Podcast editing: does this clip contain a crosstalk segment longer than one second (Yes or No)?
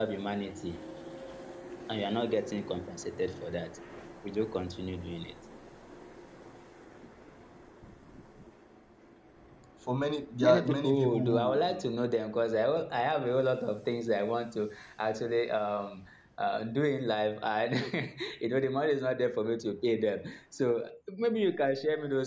Yes